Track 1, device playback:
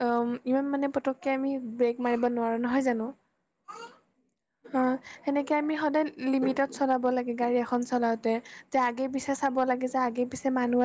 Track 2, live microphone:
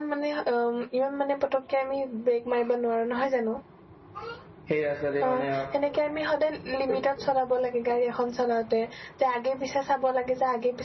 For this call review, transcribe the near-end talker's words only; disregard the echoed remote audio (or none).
সেই ৰাস্তাতে মানে